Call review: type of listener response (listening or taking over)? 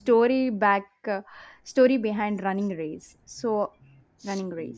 taking over